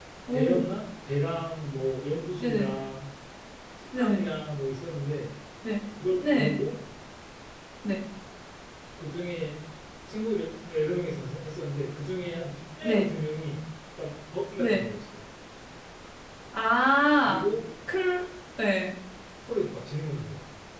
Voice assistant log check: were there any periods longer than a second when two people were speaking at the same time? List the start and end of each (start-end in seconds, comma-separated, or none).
none